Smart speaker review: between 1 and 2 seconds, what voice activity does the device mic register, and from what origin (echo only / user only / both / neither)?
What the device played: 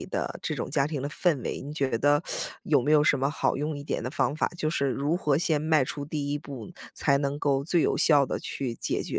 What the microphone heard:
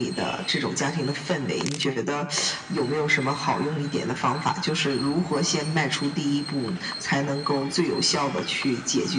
echo only